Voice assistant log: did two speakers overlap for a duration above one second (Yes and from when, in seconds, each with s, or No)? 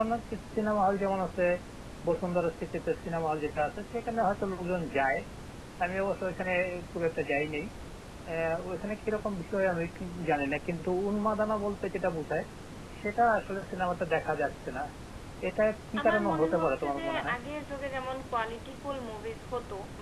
Yes, from 16.0 s